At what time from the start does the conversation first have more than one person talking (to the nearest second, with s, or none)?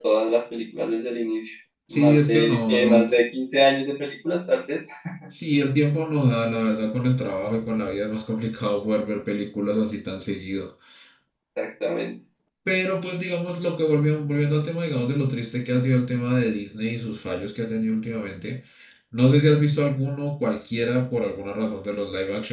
2 s